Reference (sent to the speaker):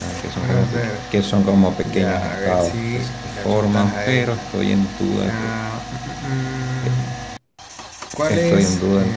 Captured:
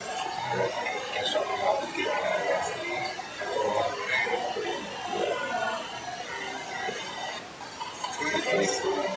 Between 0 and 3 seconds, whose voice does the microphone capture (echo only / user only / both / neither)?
echo only